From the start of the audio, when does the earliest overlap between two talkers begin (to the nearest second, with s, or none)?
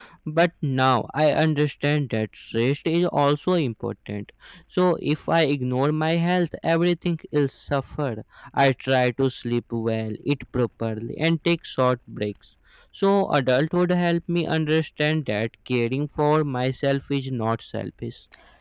none